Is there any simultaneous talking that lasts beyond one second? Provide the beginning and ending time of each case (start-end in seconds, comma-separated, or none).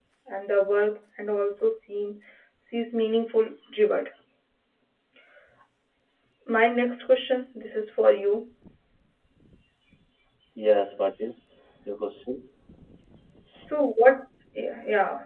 none